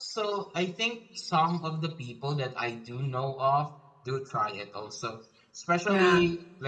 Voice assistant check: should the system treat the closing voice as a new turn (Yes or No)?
No